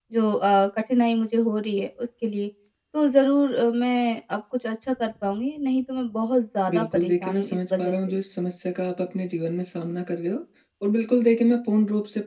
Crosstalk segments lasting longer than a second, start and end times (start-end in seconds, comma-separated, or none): 6.7-8.2